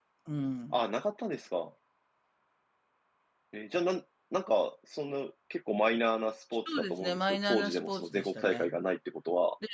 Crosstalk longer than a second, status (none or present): present